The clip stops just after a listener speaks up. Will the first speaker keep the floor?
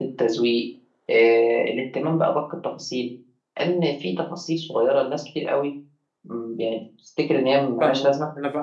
No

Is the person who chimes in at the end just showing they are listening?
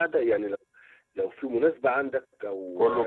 Yes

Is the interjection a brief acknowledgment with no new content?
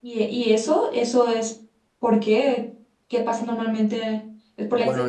No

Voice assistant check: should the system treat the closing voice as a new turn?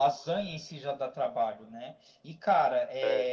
No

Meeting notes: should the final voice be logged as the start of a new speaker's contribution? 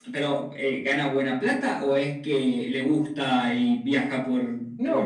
Yes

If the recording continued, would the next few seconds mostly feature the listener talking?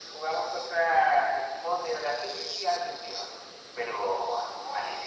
No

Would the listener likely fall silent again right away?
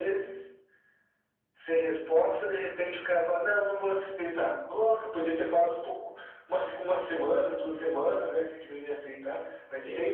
Yes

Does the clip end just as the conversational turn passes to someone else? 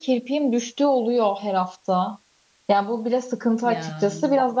No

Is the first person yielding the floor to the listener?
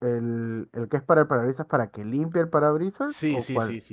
Yes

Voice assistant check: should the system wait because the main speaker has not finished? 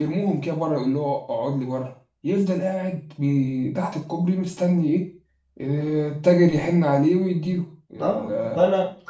No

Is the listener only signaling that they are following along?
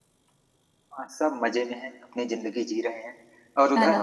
No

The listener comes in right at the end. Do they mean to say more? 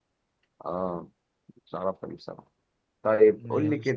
No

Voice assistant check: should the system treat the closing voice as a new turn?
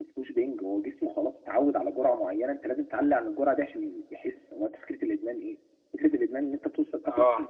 No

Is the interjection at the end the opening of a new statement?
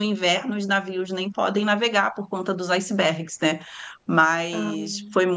No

